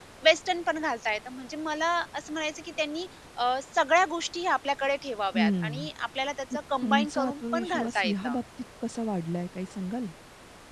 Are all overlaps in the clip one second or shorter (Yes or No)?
No